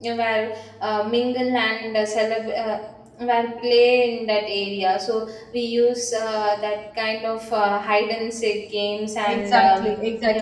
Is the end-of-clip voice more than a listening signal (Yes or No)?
Yes